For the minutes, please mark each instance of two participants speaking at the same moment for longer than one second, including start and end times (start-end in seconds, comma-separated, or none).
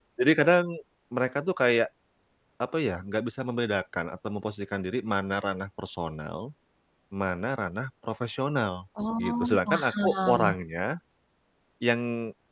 9.2-10.6